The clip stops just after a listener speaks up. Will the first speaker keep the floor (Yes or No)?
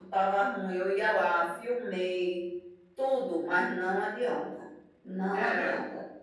Yes